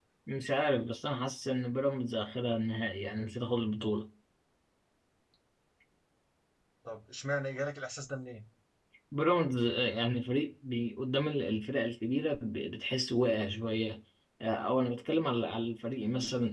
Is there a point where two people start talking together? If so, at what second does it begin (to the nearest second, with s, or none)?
none